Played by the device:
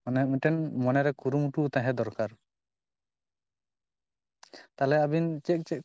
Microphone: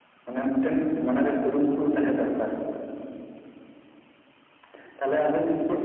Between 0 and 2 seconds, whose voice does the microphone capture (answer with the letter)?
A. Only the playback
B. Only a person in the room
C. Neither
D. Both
A